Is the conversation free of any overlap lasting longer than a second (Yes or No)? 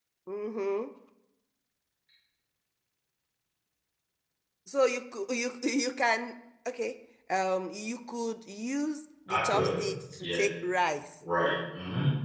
Yes